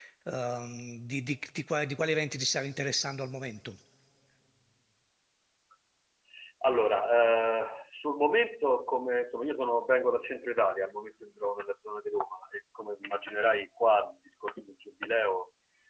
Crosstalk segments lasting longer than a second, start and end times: none

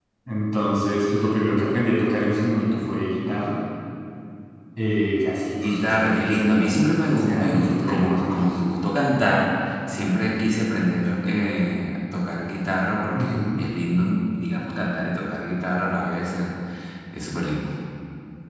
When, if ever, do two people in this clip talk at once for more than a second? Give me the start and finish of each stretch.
5.6-8.5

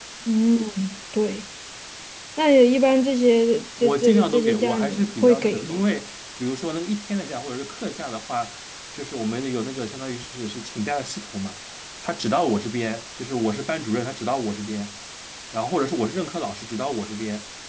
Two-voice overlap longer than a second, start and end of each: 3.8-5.8

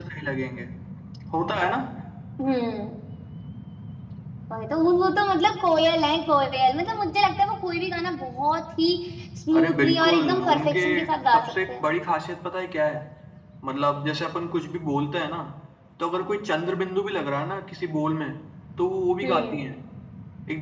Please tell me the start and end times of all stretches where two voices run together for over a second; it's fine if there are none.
9.6-10.8

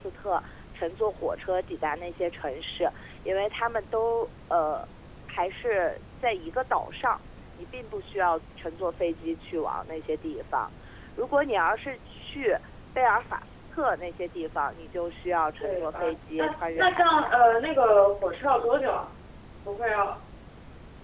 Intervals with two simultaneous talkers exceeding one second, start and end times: 15.6-17.6

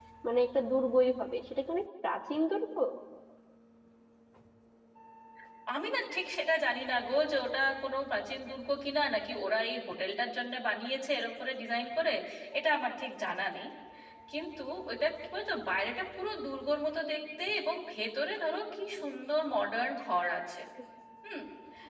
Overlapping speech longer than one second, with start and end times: none

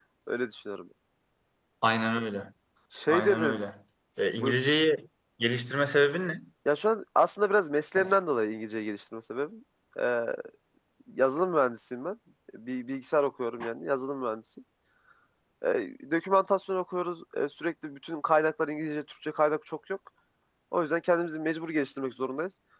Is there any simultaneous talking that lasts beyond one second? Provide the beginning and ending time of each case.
none

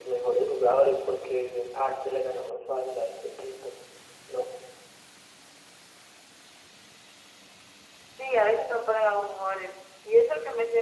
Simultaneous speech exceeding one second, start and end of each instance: none

